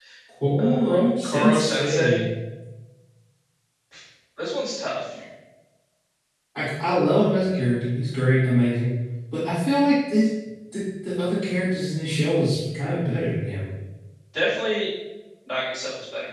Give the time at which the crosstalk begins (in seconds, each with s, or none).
0.6 s